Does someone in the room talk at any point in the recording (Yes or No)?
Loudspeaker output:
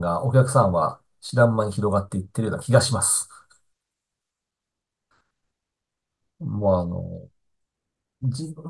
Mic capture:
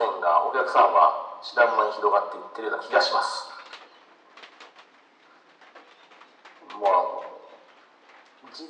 No